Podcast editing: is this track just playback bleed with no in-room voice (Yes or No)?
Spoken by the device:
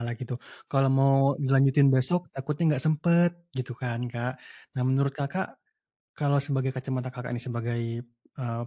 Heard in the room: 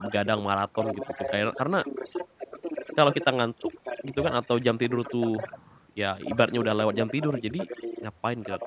No